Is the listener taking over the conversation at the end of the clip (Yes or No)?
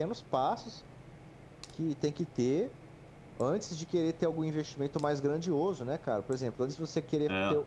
No